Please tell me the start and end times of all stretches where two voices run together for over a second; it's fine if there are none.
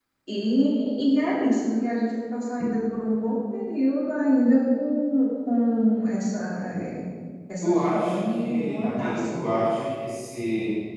7.6-9.4

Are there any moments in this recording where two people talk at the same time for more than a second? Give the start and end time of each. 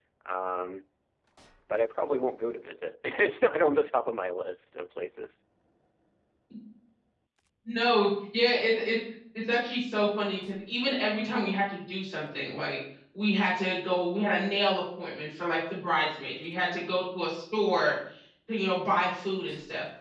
none

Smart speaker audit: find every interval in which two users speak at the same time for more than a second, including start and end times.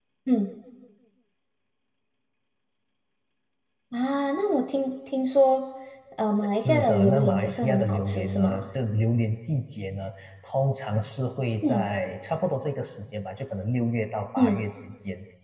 6.7-8.6

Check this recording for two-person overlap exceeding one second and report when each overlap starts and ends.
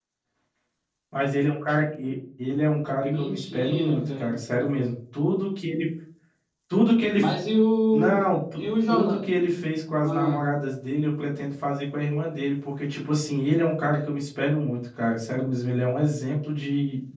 3.0-4.4, 7.9-9.2

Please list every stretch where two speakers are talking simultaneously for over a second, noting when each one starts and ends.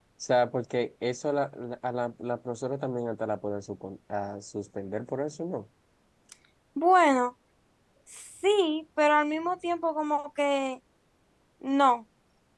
none

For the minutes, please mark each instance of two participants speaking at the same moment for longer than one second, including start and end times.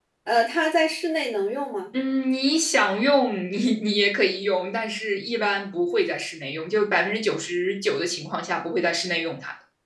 none

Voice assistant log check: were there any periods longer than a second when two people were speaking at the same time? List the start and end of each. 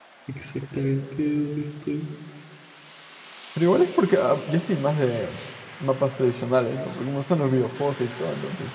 none

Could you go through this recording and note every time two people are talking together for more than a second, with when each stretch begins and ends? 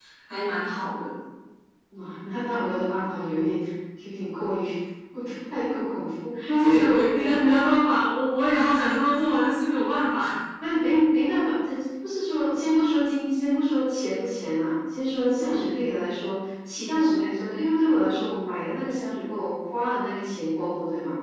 6.5-7.7

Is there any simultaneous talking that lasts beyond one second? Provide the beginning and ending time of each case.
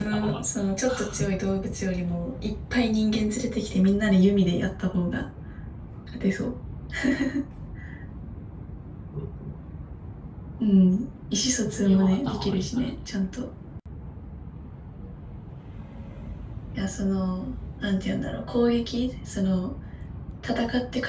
11.7-12.9

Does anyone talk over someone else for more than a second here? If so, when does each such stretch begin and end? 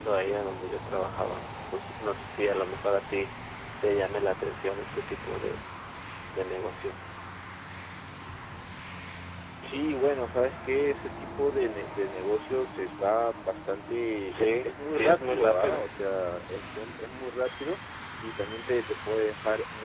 14.3-15.8

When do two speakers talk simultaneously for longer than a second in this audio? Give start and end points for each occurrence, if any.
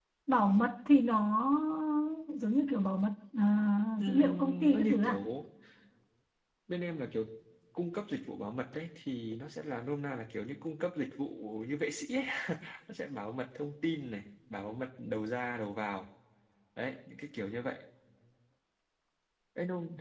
4.0-5.2

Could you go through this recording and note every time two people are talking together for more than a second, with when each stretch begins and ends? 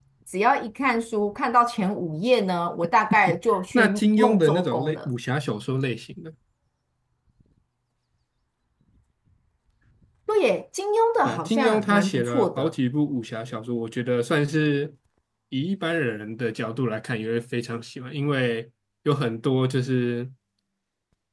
3.7-5.1, 11.2-12.7

